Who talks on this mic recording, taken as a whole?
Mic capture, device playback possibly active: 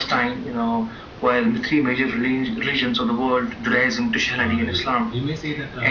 both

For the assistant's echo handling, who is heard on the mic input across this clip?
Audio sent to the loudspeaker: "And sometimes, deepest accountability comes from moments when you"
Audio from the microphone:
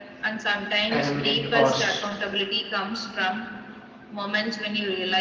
both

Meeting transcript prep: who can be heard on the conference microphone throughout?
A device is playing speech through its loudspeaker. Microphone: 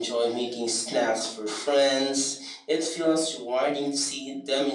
echo only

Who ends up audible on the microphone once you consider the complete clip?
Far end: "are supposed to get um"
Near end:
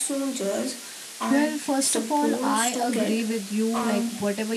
both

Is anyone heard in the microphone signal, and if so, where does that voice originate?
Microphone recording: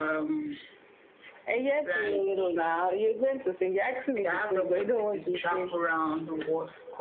echo only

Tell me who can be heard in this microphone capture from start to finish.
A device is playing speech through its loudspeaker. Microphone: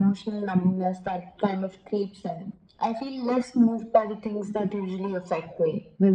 echo only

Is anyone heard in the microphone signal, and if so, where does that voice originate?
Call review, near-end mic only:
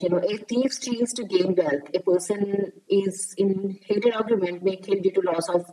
echo only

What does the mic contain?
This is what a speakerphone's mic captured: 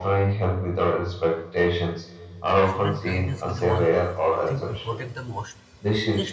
both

